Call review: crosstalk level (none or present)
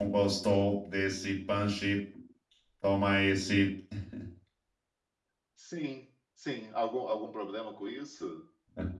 none